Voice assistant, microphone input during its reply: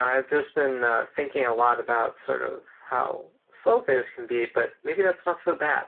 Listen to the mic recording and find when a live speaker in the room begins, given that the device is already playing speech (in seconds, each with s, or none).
none